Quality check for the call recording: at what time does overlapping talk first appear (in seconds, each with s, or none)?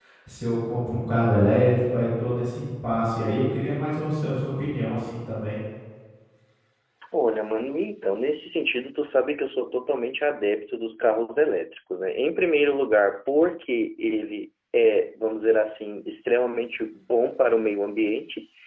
none